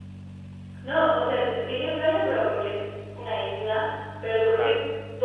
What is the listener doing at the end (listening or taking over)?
listening